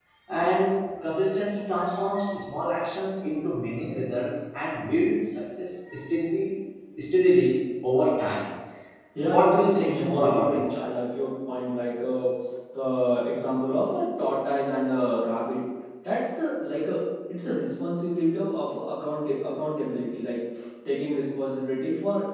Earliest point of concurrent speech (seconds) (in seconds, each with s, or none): 9.2 s